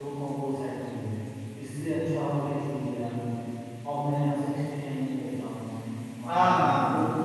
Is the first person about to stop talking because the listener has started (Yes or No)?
Yes